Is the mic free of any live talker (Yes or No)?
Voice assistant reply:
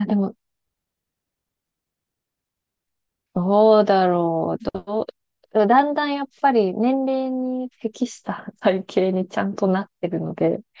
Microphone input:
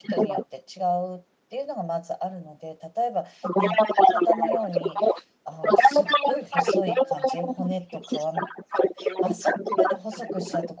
No